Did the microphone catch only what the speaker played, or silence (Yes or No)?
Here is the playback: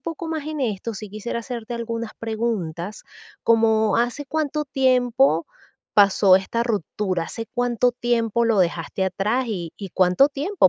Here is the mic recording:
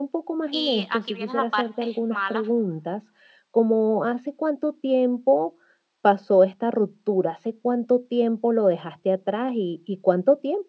No